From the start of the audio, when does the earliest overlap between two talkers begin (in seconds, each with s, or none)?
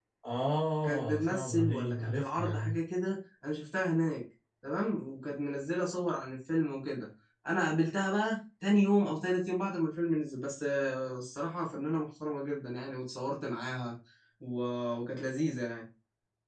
0.8 s